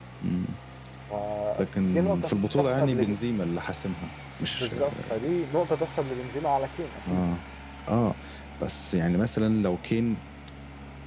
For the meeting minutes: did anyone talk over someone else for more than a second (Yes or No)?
Yes